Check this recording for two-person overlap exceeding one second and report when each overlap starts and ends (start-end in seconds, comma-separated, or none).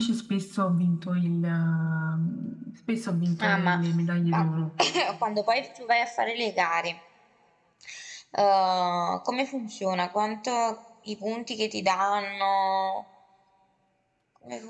none